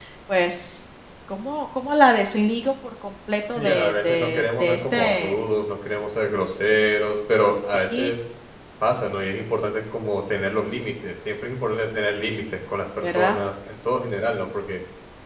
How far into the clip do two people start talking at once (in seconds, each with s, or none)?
3.5 s